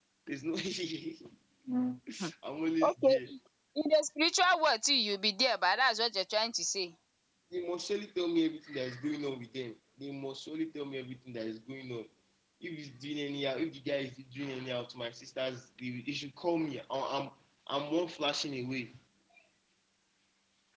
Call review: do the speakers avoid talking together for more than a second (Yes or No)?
Yes